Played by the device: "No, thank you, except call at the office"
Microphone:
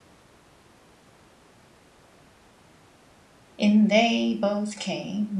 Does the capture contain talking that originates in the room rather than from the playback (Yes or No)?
Yes